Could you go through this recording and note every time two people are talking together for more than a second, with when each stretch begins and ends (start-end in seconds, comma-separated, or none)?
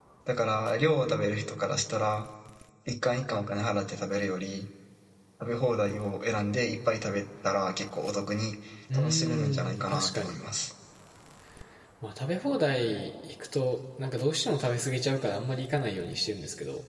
9.0-10.4